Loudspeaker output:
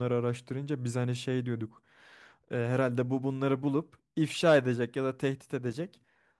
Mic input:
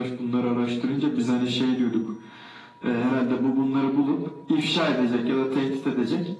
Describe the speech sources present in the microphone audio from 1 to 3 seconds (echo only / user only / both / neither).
echo only